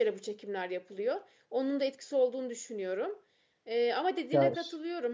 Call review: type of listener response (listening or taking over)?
listening